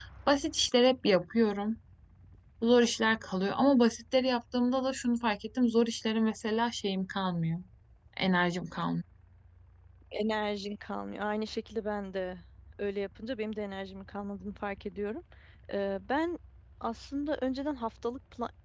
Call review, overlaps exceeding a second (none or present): none